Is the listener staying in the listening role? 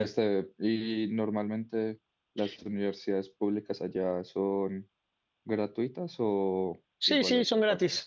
No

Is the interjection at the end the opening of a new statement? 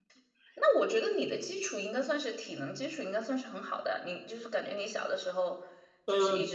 Yes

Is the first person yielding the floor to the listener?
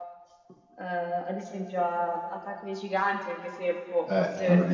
Yes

